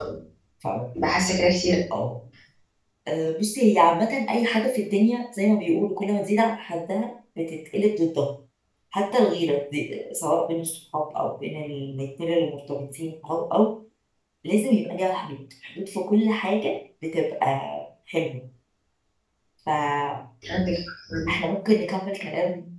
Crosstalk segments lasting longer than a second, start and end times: none

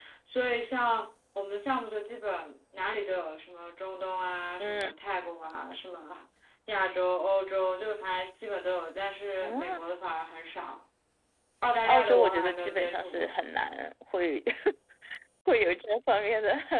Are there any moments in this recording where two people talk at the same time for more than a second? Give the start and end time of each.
11.9-13.3

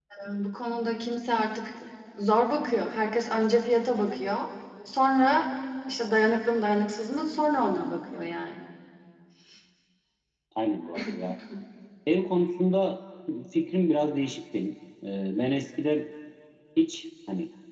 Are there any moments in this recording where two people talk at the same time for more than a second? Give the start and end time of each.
none

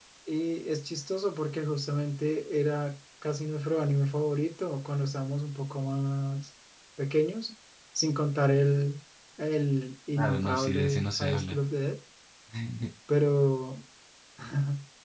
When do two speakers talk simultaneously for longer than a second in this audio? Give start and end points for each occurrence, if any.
10.2-11.6

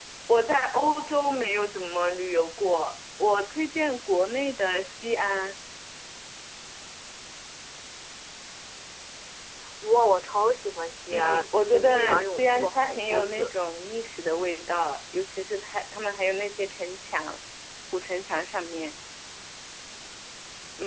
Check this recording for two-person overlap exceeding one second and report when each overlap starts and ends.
11.1-13.5

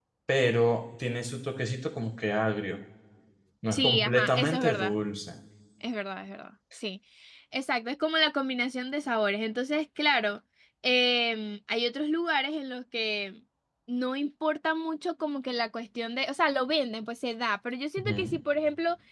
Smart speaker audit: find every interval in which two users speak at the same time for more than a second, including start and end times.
3.7-4.9

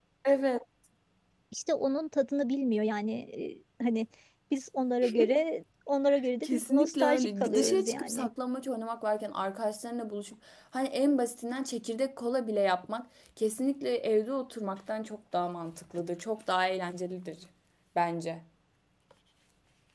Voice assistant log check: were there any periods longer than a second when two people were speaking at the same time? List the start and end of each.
6.4-8.3

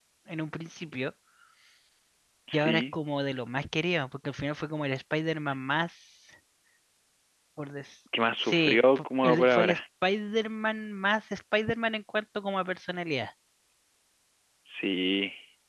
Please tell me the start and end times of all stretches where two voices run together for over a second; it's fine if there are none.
8.4-9.8

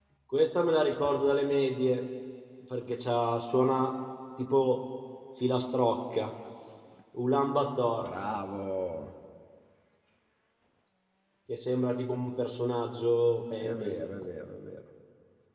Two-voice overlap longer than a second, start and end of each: none

